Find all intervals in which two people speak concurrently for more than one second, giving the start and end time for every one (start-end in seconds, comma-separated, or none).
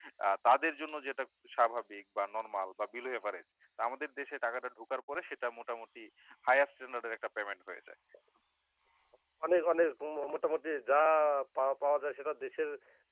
none